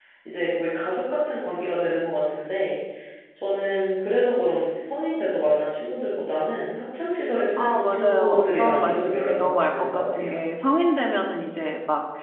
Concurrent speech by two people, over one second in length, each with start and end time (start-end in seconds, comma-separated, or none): 7.6-10.4